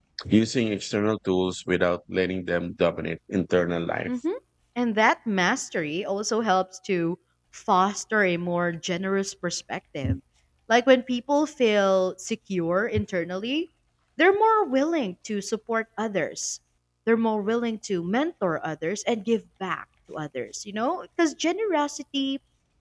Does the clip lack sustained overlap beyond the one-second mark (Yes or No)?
Yes